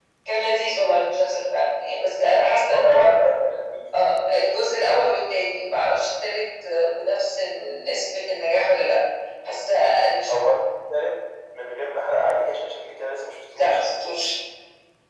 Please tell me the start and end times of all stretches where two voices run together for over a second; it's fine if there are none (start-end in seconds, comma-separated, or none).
none